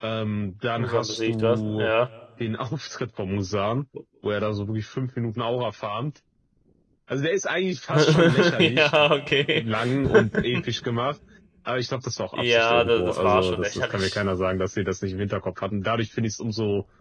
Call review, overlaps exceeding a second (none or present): present